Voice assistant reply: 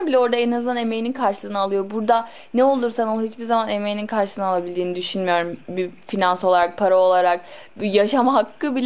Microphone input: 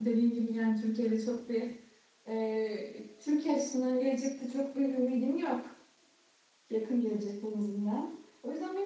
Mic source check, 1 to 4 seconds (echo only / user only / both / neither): user only